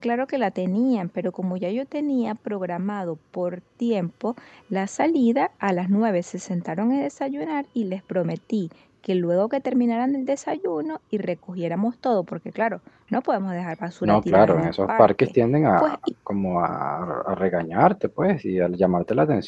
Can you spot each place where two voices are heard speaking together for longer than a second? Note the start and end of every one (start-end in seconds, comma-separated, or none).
14.0-15.3